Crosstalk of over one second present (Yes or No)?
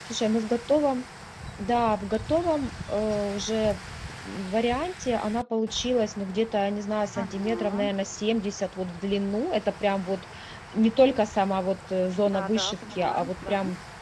Yes